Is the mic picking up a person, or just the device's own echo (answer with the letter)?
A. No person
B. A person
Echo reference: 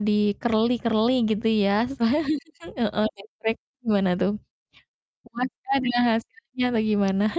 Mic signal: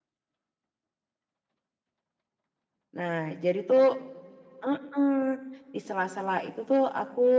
B